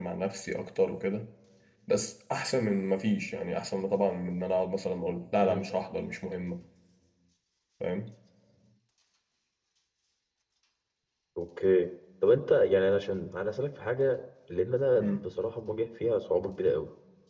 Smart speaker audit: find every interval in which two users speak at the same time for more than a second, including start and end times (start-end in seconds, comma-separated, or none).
none